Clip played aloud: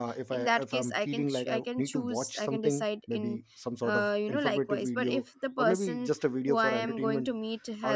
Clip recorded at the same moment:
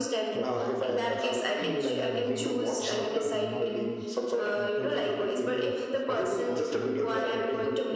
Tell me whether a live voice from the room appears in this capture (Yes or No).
Yes